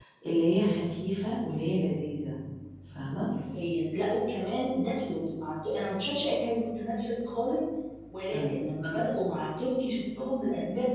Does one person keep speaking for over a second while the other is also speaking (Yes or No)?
No